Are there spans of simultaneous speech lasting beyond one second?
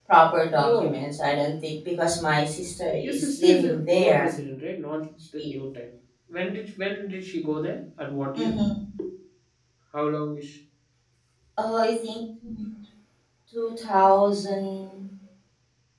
Yes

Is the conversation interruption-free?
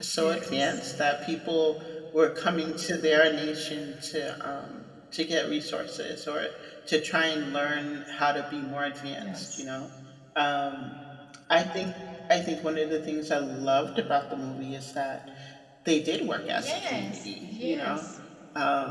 No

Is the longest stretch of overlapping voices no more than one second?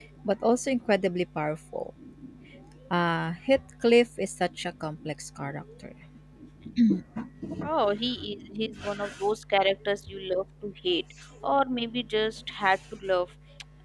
Yes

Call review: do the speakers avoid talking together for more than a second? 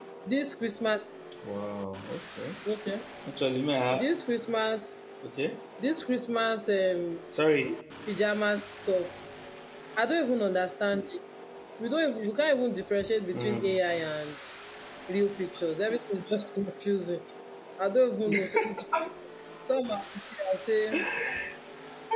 Yes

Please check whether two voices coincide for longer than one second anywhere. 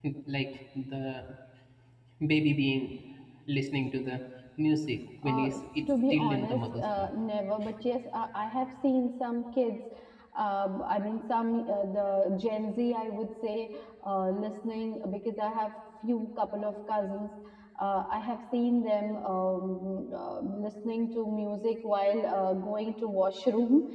Yes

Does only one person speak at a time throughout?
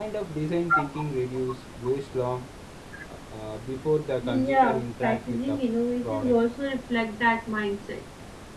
No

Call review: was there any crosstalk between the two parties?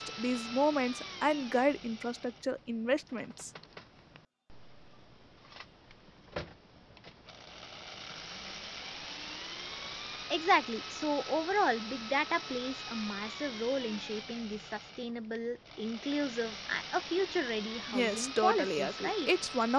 Yes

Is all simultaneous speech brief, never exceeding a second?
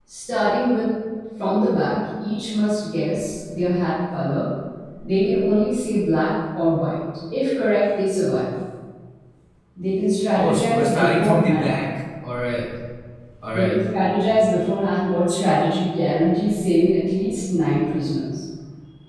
No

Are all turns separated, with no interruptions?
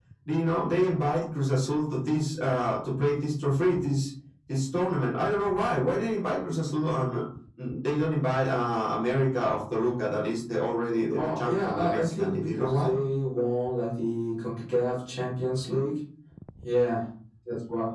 No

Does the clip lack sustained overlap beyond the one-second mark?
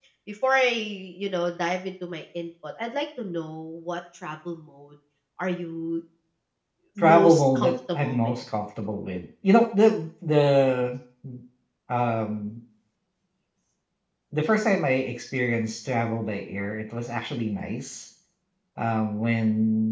No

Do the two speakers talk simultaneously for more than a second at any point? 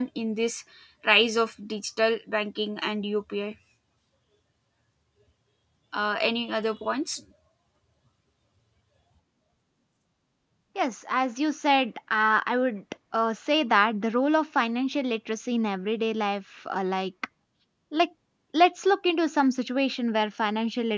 No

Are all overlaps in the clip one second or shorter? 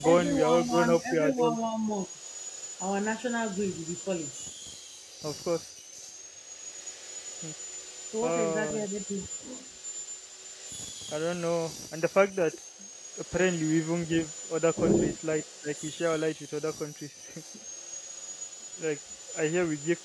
No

